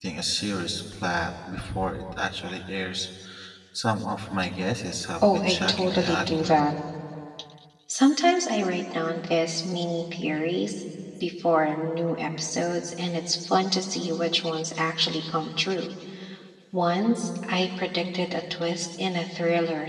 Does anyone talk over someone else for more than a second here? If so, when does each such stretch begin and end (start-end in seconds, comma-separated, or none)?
5.2-6.6